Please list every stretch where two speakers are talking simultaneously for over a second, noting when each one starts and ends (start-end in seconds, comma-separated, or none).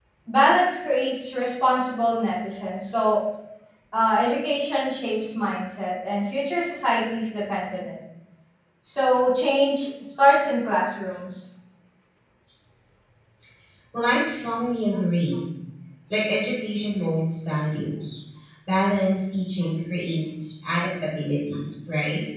none